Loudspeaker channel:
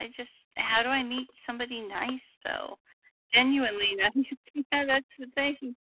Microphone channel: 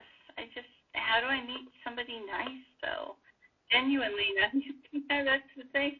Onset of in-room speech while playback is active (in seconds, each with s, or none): none